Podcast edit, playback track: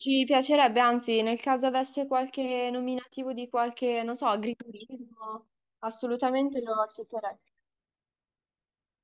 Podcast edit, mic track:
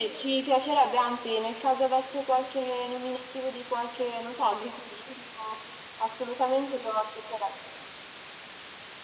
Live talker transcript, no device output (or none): none